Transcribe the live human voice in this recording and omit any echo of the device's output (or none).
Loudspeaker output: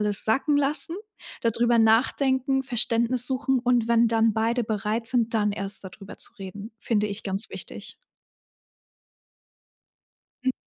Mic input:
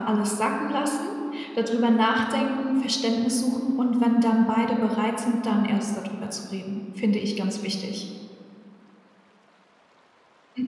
none